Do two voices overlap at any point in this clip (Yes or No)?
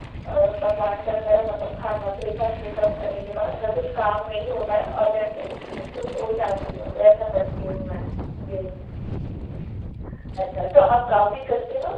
No